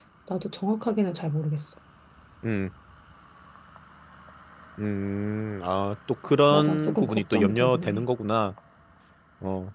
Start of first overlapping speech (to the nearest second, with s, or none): 7 s